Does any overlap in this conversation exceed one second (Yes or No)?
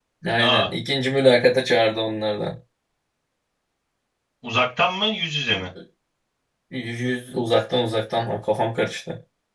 No